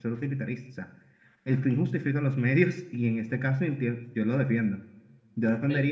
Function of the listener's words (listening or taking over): listening